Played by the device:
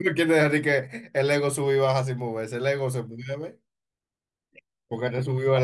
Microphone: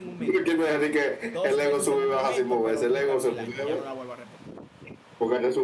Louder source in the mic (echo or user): echo